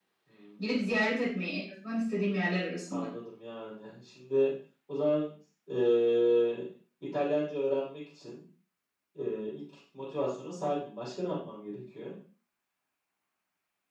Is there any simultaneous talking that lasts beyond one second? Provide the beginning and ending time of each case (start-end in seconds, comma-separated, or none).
none